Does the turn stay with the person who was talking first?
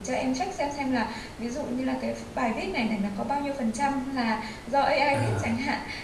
Yes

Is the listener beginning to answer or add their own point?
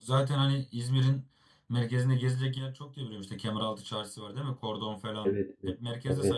Yes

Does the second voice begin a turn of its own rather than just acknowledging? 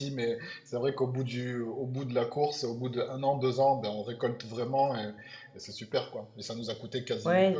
Yes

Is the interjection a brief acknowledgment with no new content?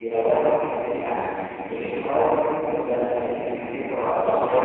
No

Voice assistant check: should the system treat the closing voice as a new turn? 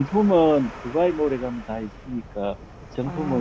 No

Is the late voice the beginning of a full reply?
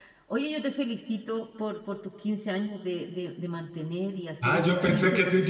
Yes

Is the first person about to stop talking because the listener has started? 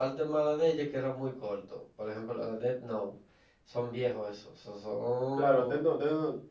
Yes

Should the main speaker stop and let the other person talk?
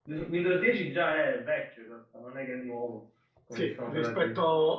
Yes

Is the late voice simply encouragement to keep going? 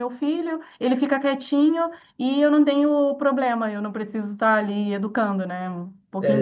No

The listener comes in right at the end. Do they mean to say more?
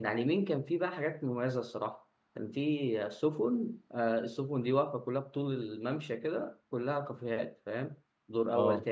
No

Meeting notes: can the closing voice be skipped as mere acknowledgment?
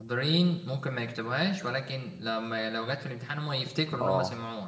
No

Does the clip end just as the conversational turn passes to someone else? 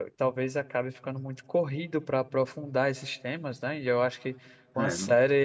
No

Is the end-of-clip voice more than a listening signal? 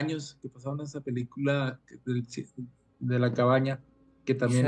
Yes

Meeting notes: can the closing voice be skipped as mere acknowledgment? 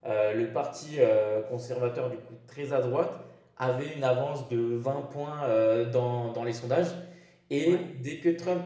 Yes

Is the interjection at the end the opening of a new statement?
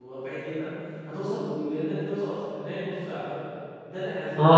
Yes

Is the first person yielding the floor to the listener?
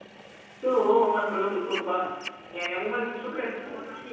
No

